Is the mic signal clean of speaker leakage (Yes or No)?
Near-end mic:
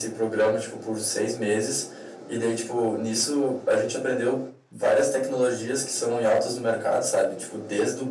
No